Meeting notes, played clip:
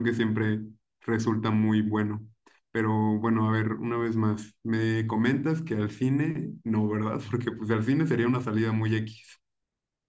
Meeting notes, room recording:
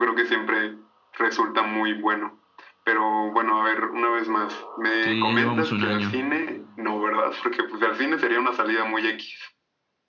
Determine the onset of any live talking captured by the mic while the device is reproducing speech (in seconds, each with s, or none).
5.0 s